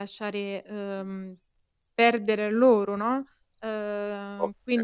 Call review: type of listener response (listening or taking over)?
taking over